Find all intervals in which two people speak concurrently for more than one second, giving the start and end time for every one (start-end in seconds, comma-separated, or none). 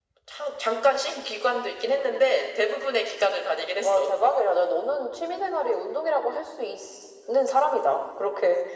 none